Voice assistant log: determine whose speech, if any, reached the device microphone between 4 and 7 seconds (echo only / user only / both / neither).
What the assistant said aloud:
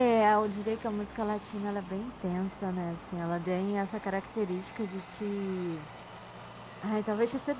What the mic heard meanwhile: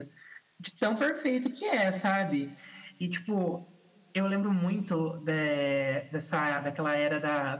user only